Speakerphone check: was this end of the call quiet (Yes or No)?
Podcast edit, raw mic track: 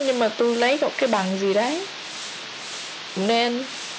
Yes